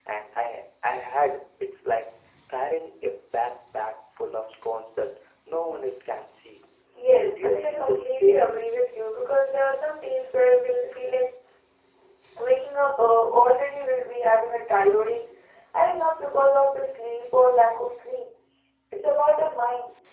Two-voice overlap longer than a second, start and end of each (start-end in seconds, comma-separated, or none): 7.2-8.5